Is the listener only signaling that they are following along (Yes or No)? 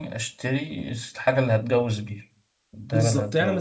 No